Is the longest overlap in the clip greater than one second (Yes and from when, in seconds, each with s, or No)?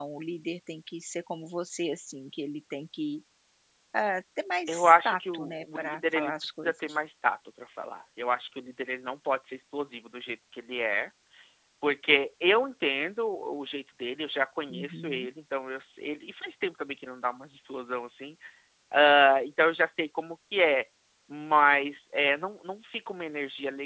Yes, from 4.7 s